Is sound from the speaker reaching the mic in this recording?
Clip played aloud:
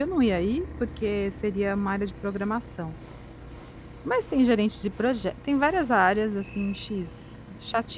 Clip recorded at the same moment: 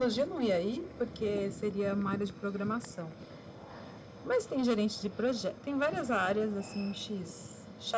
Yes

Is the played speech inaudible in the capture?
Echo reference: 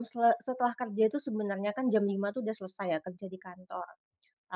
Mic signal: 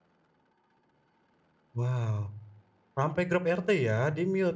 Yes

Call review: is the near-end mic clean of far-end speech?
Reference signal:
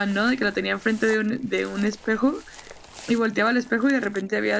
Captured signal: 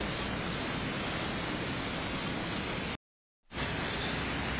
Yes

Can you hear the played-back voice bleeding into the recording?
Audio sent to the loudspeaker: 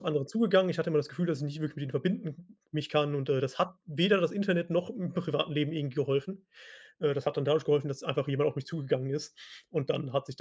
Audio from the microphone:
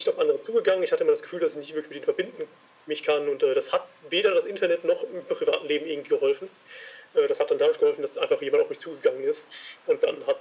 Yes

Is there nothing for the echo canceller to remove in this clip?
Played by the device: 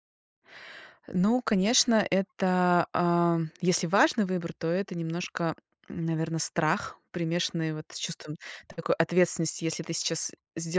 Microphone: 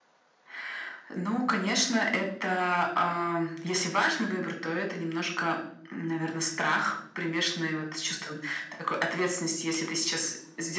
No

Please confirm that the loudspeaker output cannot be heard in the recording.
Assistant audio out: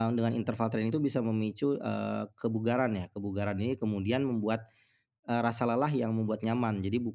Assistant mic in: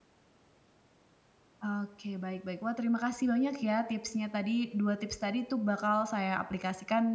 Yes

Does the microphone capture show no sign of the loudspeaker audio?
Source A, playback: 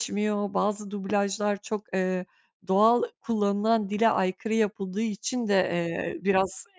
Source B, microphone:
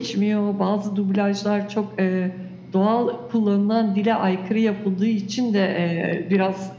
No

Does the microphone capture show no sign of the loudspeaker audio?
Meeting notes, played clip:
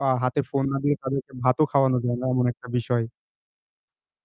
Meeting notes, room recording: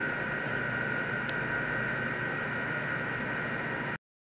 Yes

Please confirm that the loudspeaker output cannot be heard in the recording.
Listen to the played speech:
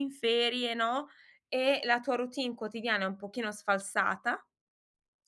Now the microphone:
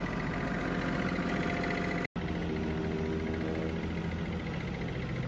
Yes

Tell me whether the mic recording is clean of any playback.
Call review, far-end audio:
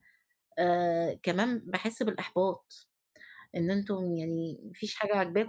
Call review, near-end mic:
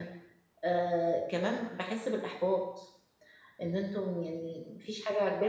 No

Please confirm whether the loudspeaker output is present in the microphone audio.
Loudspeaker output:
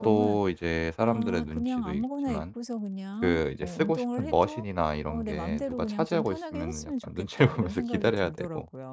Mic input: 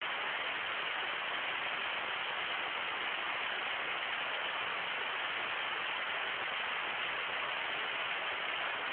No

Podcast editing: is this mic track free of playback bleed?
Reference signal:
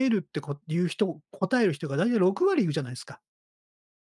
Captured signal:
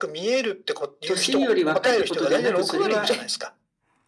No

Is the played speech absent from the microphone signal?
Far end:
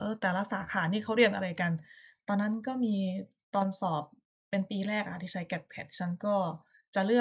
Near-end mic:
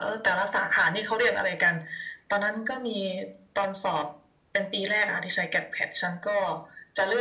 No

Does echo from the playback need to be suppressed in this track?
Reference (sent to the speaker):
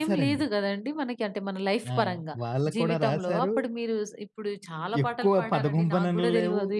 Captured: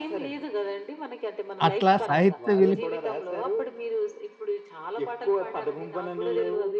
Yes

